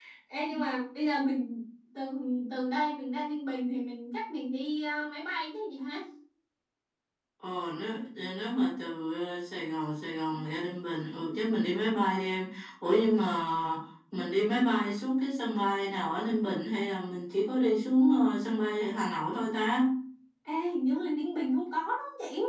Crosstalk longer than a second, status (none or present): none